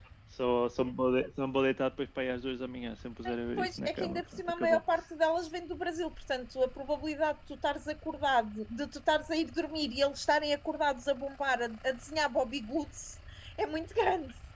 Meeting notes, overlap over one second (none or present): present